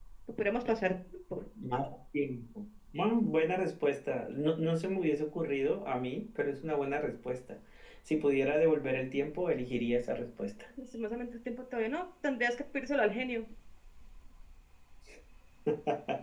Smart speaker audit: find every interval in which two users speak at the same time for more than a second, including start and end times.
none

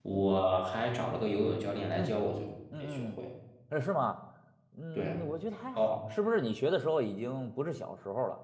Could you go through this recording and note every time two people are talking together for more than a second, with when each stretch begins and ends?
none

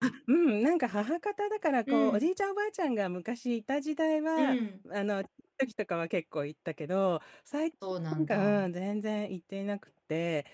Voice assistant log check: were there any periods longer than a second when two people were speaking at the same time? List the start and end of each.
none

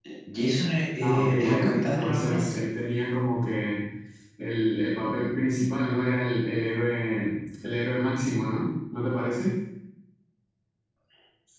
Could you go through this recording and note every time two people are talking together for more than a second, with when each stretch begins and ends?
1.0-2.4

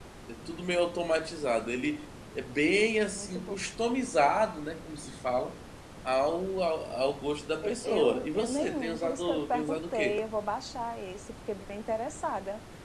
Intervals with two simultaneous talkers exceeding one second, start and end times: 7.6-10.2

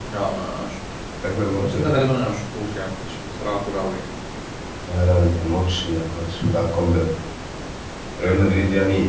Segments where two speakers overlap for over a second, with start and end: none

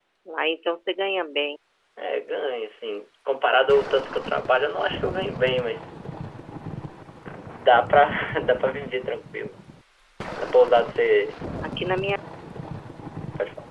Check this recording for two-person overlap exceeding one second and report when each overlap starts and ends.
none

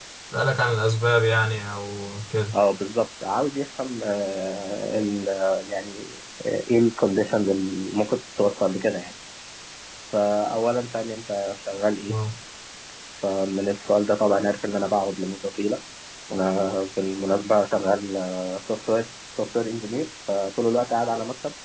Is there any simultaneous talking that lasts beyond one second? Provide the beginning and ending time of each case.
none

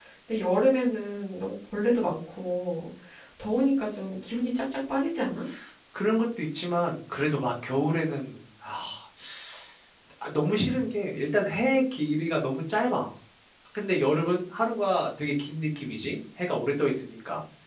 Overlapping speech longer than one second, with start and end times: none

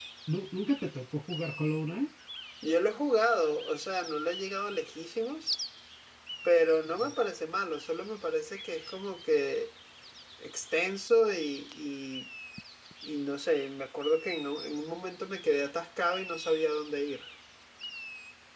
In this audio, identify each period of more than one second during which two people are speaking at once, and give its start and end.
none

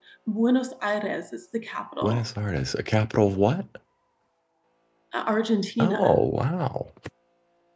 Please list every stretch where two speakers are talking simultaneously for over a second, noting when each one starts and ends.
none

